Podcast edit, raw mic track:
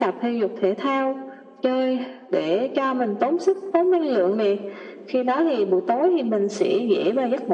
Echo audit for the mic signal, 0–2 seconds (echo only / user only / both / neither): echo only